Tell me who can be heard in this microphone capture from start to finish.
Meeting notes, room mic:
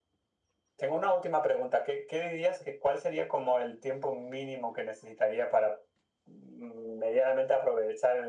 echo only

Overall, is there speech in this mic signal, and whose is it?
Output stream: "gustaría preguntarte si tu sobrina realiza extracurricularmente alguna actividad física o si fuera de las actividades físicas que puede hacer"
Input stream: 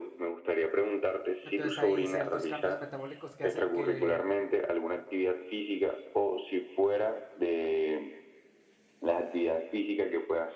both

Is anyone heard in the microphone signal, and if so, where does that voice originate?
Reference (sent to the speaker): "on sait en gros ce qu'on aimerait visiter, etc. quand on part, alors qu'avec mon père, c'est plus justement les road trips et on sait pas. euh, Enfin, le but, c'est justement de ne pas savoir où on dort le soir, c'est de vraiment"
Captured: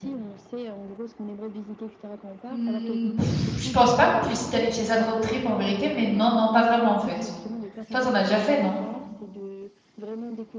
both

